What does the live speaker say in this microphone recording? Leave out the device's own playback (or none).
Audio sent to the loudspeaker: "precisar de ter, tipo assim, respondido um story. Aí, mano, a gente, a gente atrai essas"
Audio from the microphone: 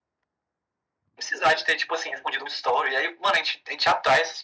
none